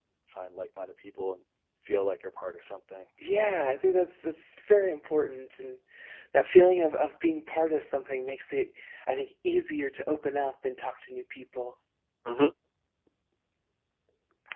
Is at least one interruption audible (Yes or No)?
No